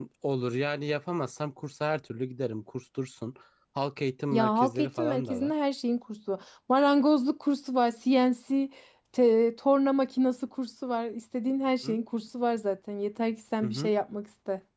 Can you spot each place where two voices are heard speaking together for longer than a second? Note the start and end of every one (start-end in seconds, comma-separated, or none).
4.3-5.5